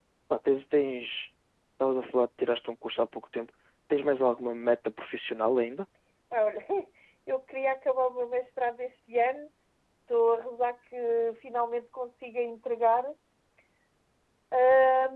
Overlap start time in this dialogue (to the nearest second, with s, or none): none